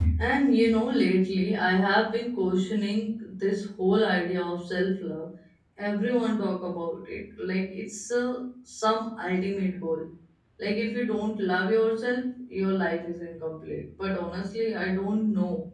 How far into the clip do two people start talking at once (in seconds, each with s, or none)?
none